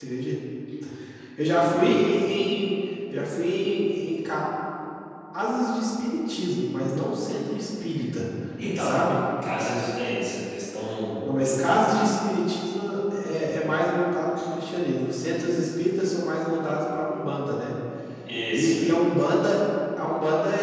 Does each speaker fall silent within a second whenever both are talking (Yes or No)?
Yes